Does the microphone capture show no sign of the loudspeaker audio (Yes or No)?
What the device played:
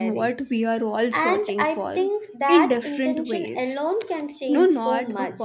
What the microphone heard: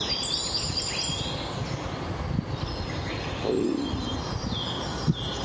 Yes